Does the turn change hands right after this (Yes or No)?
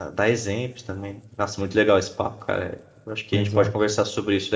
No